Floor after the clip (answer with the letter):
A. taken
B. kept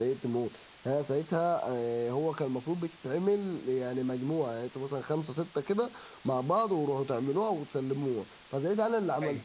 B